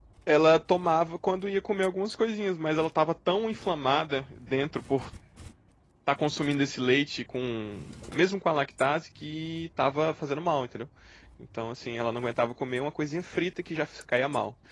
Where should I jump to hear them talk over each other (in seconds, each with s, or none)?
none